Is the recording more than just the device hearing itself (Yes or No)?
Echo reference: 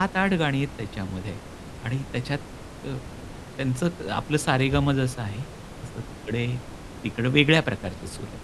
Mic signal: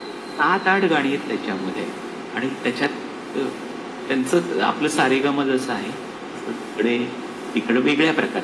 No